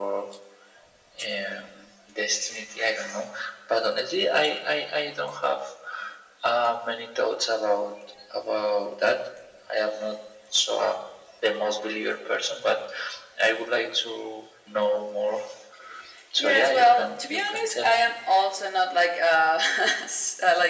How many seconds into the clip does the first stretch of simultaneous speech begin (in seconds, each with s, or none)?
16.4 s